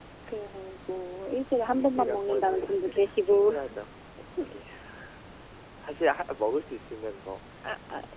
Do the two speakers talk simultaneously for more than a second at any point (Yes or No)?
Yes